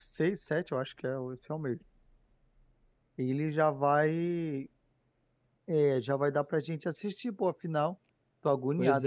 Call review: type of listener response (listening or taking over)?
taking over